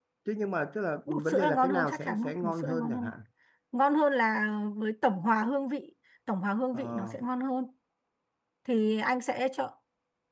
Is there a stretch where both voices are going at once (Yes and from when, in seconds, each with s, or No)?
Yes, from 1.1 s